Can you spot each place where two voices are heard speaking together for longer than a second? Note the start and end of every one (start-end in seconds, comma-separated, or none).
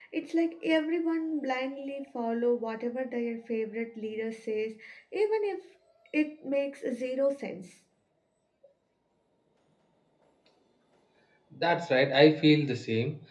none